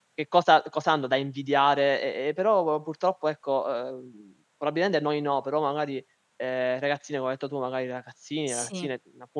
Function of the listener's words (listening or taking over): listening